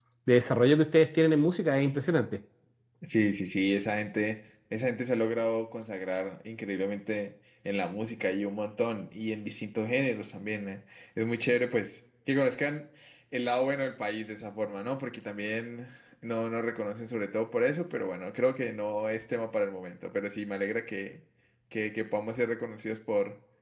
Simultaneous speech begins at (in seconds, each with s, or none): none